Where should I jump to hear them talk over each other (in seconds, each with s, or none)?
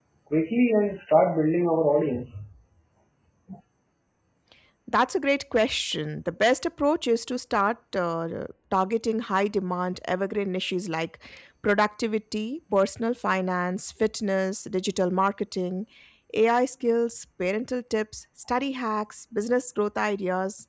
none